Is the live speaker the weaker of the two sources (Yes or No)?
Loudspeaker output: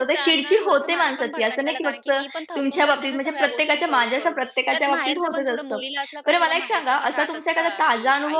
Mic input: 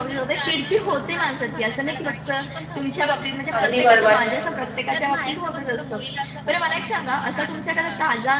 No